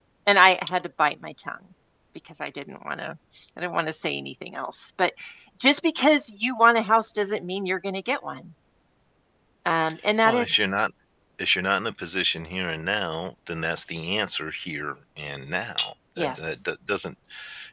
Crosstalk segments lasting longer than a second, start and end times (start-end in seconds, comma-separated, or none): none